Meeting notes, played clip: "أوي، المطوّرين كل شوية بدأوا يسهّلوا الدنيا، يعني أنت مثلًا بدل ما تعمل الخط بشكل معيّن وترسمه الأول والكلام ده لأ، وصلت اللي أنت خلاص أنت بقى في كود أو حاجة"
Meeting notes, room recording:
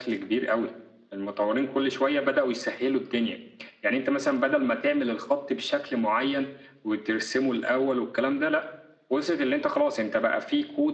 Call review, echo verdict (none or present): present